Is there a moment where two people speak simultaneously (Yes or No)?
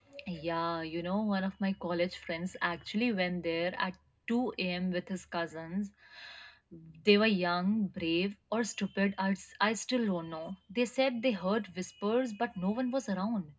No